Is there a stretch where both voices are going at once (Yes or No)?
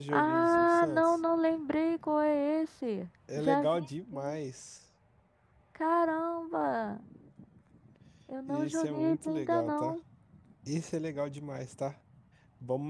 Yes